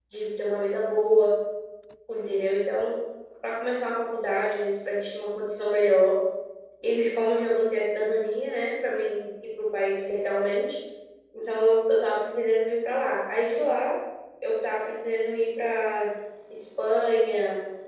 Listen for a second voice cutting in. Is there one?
No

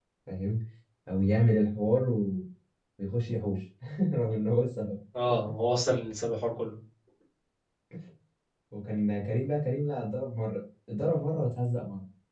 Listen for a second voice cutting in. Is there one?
No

